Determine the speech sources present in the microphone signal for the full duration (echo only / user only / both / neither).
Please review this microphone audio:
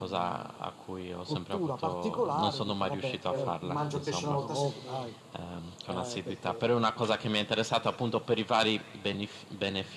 both